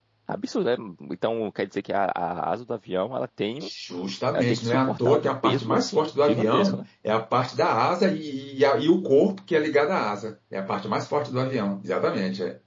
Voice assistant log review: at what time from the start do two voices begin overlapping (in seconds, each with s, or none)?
4.3 s